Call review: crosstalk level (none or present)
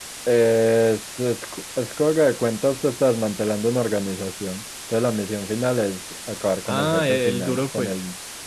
present